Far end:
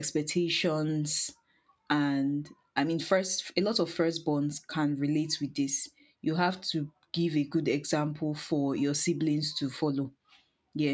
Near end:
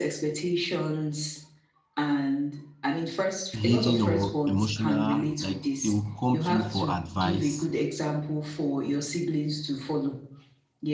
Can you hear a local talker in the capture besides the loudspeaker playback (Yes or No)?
Yes